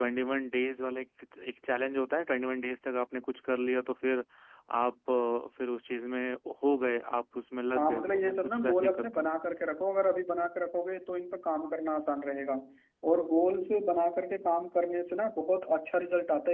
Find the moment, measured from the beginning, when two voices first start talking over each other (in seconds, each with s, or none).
7.8 s